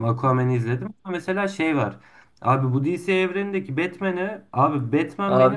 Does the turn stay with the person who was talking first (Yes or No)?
Yes